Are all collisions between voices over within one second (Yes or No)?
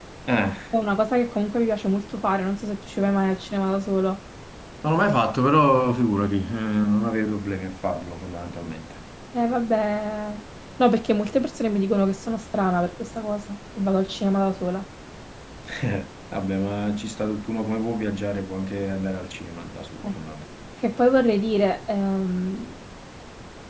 Yes